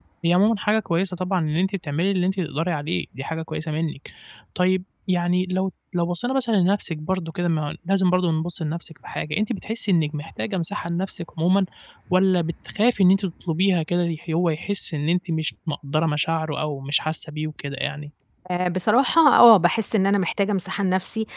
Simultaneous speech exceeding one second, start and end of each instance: none

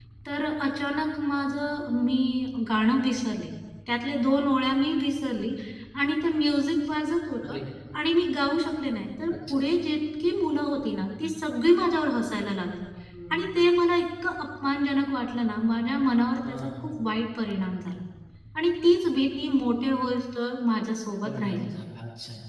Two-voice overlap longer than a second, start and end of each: none

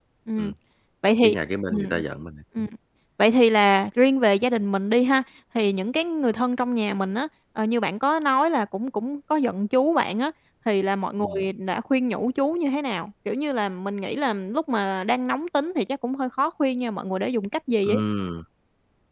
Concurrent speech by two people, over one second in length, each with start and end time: none

